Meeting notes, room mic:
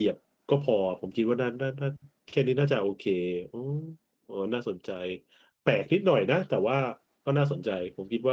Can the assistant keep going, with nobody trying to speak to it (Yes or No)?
No